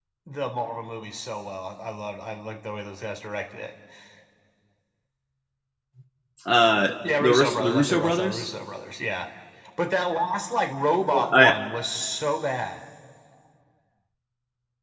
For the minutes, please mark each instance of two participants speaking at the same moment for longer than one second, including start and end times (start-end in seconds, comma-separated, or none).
7.2-8.5